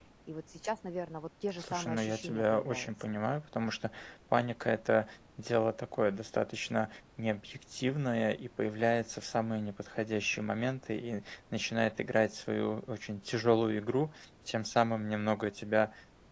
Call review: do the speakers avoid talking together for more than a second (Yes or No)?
No